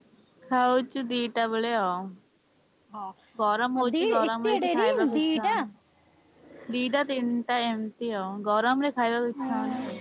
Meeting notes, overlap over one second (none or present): present